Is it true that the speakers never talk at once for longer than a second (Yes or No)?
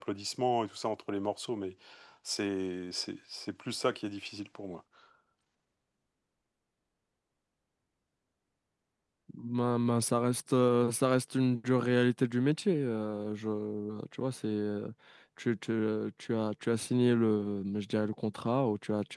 Yes